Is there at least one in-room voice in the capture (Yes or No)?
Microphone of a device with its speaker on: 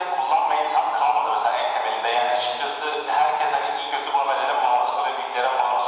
No